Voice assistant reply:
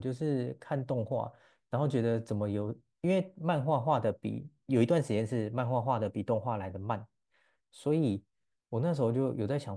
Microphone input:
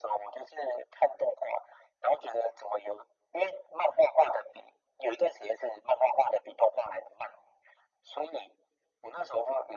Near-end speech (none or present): none